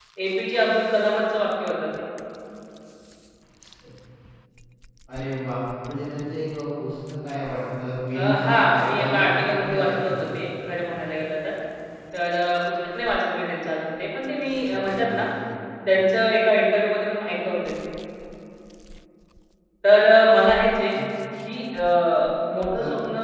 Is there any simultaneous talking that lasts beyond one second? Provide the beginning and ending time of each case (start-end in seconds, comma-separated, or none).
8.1-10.1